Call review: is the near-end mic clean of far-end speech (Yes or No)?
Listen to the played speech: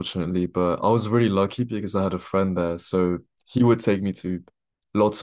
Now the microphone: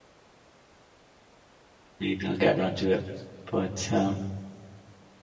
Yes